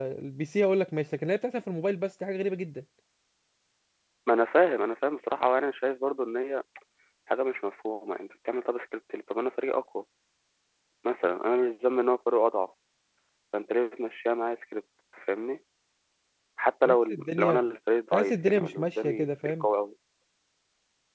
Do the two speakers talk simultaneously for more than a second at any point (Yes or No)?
Yes